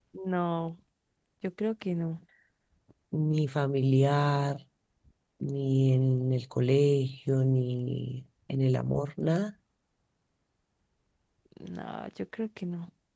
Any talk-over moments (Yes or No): No